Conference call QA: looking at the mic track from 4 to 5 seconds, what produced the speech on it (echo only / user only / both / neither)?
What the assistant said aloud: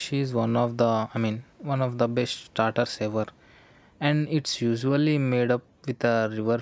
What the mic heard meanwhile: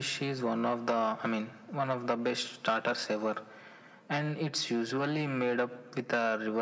echo only